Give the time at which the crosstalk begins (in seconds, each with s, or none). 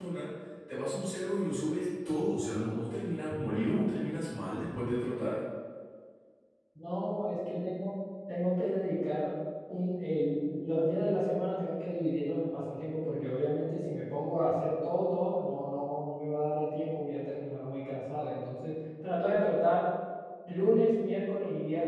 none